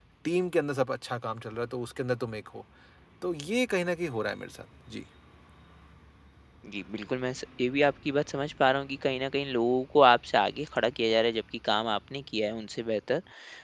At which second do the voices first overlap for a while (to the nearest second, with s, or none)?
none